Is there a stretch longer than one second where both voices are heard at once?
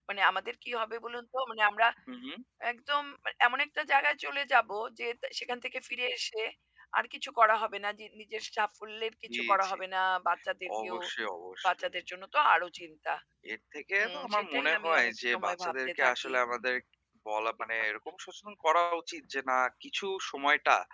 Yes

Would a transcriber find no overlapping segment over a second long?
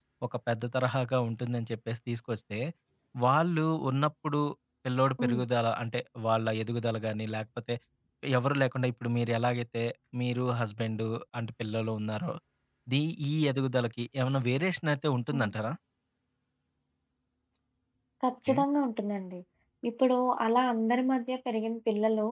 Yes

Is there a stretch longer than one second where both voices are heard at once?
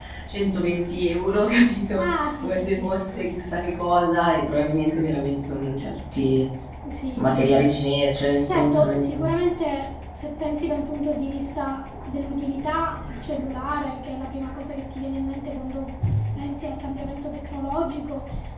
Yes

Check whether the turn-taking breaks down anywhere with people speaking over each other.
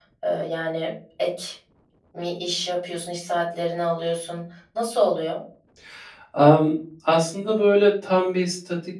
No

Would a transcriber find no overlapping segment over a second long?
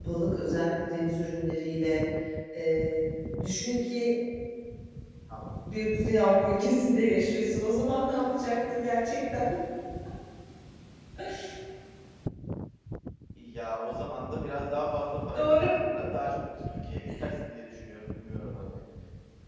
Yes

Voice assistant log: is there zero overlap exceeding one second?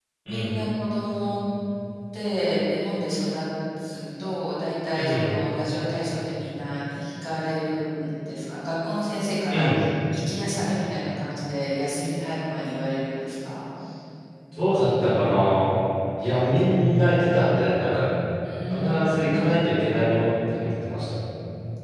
Yes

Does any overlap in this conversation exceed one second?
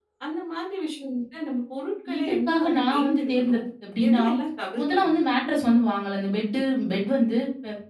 Yes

